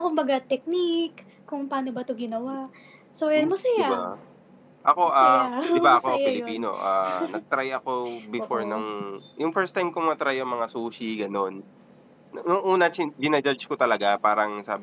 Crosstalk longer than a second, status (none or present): present